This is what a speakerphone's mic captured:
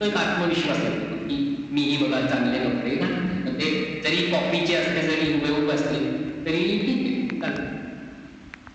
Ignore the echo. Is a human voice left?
No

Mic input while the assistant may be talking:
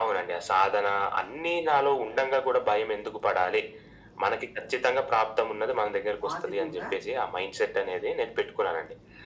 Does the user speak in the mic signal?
Yes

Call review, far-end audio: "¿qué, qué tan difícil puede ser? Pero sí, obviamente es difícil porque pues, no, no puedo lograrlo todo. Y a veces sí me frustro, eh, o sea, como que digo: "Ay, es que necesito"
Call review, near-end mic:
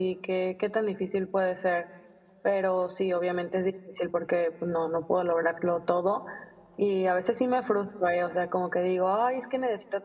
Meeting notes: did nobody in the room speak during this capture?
Yes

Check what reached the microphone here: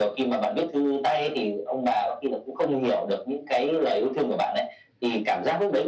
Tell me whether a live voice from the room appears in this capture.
No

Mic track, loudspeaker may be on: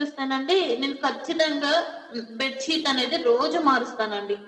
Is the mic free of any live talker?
Yes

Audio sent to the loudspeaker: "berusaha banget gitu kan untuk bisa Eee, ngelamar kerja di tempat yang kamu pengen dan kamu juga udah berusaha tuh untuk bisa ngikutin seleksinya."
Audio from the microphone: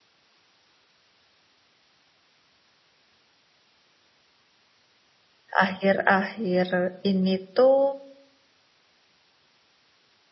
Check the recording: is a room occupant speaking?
Yes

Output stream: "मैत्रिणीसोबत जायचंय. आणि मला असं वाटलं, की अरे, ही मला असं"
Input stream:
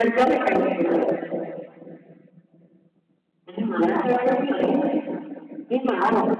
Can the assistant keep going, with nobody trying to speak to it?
Yes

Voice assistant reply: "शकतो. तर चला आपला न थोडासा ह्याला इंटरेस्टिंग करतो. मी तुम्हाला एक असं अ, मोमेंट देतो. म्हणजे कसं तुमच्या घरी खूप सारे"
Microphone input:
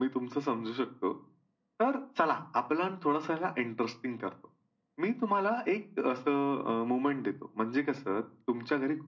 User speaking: No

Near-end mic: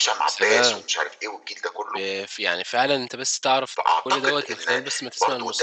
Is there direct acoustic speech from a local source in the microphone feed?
Yes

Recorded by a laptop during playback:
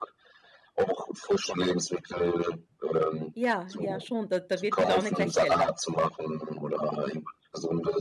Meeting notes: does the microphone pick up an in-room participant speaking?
Yes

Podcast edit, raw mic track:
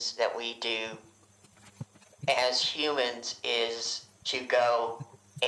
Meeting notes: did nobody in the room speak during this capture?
Yes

